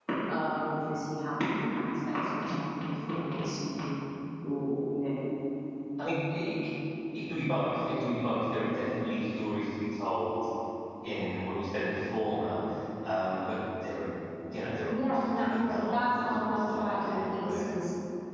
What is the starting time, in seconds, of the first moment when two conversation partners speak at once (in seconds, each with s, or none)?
14.9 s